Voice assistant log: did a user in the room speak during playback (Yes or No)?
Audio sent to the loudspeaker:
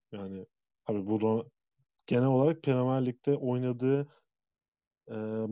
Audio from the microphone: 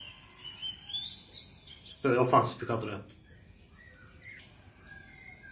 Yes